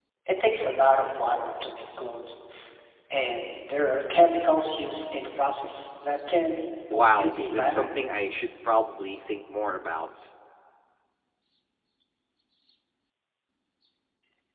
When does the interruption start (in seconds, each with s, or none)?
6.9 s